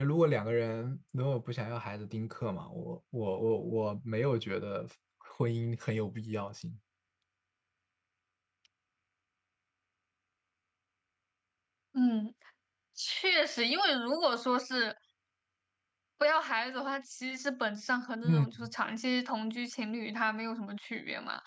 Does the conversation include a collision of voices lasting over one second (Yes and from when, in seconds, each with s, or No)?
No